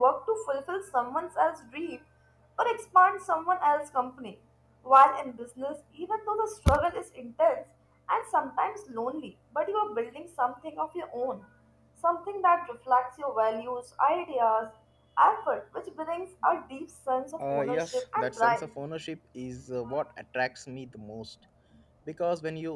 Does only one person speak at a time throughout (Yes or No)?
No